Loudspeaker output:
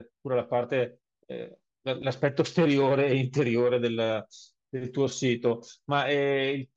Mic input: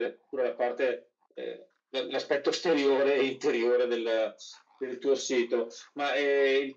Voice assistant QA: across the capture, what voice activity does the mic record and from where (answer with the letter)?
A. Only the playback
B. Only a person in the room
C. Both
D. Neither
A